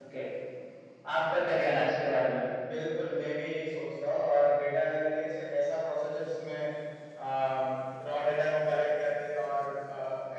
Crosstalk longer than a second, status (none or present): none